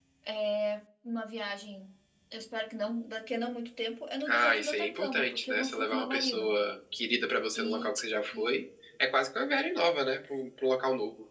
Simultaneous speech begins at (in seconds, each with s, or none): 4.3 s